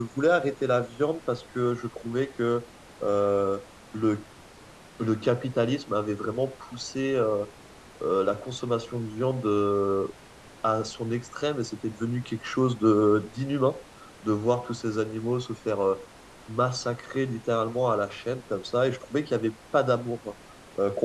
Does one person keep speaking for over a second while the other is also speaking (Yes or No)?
No